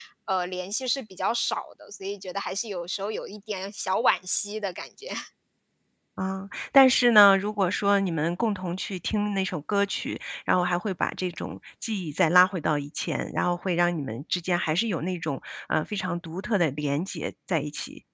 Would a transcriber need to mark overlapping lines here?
No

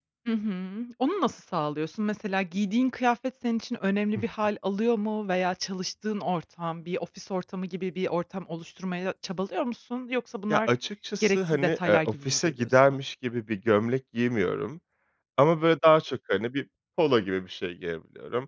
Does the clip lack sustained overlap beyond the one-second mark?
No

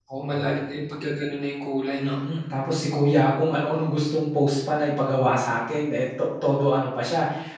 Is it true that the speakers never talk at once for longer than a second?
Yes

